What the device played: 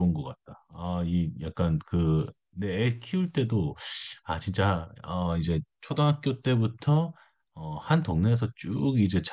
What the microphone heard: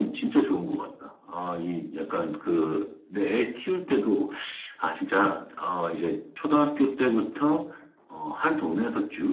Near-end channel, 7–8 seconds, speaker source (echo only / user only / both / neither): echo only